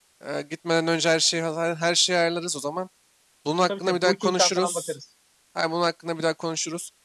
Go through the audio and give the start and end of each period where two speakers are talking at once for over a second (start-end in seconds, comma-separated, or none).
3.7-4.9